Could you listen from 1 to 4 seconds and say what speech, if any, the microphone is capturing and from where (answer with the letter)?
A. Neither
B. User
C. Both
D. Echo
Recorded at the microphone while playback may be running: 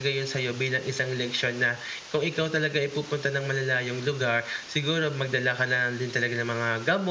B